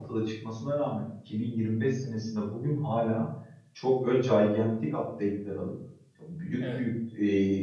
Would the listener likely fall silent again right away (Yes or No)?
Yes